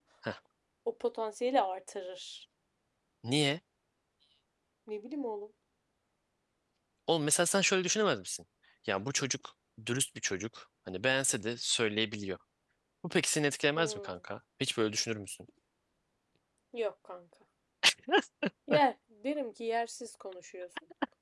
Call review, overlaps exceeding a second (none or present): none